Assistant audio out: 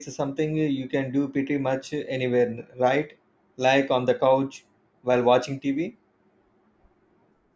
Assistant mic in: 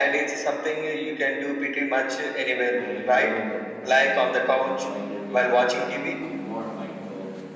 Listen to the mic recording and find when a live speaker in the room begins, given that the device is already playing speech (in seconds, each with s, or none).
2.8 s